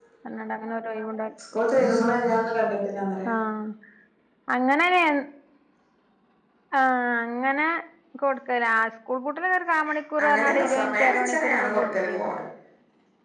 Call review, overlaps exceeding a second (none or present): present